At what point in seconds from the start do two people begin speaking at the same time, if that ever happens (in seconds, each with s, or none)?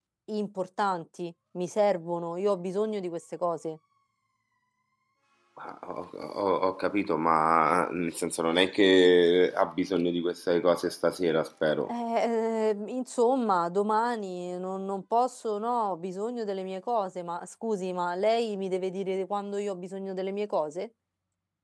none